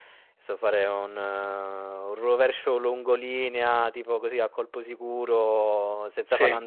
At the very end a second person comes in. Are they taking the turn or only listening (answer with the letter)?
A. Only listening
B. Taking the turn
A